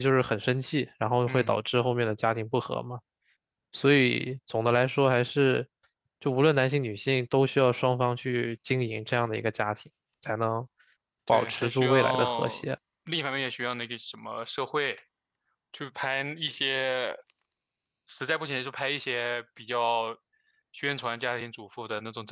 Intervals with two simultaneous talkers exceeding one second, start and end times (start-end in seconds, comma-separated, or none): 11.3-12.6